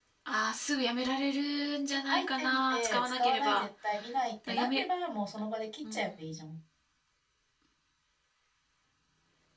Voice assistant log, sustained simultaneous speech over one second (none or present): present